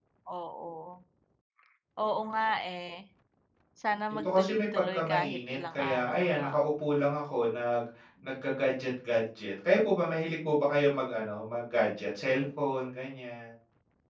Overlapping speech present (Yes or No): Yes